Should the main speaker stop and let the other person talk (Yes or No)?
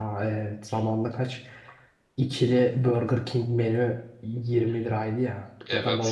No